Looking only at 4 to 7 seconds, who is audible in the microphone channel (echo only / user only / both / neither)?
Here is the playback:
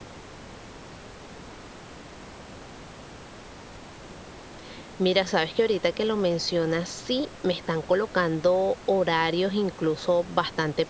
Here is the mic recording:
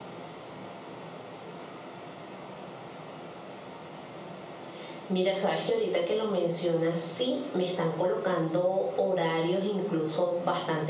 echo only